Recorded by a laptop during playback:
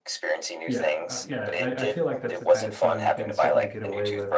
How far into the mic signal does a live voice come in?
0.6 s

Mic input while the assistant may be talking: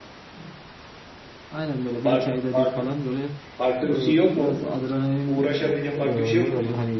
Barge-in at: 2.0 s

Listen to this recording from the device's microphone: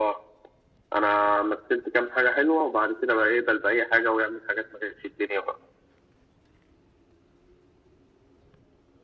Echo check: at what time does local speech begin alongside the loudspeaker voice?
none

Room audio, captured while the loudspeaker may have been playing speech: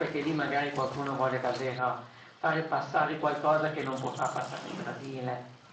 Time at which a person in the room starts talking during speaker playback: none

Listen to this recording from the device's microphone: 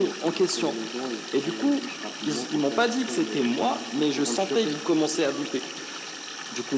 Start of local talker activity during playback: none

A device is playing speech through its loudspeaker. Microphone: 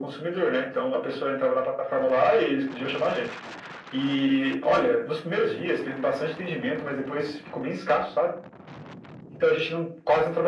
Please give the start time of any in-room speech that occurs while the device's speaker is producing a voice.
none

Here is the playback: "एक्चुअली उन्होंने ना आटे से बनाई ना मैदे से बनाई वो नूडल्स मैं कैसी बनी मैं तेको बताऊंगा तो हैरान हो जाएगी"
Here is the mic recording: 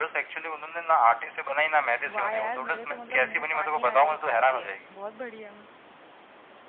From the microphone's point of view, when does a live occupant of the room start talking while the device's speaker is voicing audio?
2.1 s

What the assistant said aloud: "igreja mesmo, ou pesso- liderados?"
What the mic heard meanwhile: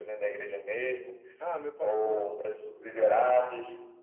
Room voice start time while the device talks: 1.4 s

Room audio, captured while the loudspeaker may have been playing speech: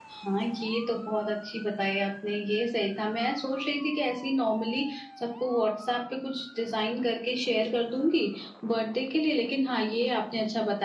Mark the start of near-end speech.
none

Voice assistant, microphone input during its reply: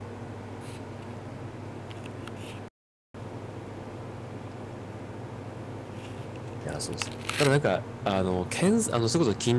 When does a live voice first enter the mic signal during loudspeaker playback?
6.6 s

